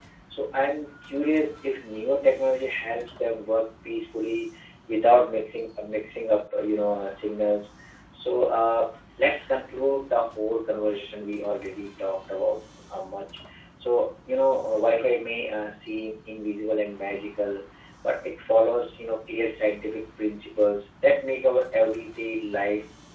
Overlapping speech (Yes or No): No